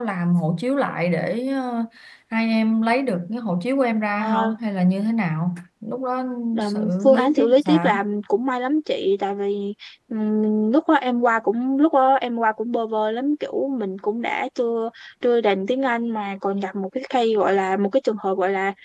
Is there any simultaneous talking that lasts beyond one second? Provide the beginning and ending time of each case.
6.6-8.0

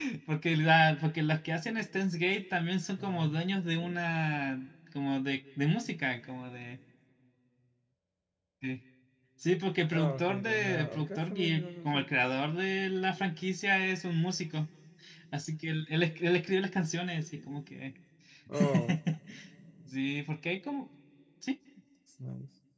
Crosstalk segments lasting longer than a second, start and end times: 9.9-12.1

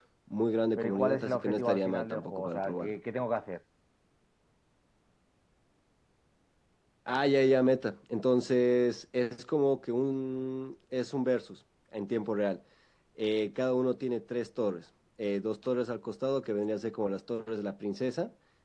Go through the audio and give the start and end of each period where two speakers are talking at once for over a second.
0.8-3.0

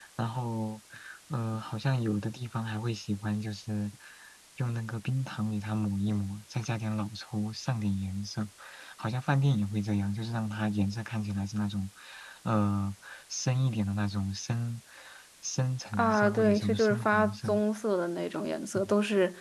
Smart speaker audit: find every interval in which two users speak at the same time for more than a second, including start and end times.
15.9-17.6

